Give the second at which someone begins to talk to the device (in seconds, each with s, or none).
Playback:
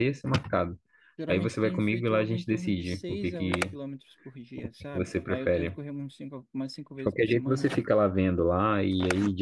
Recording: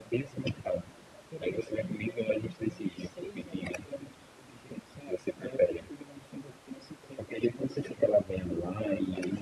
none